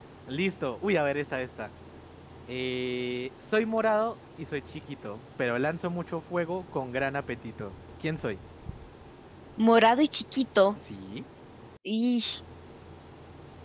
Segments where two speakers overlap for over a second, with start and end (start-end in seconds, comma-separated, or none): none